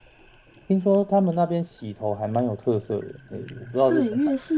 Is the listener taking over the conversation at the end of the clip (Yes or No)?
Yes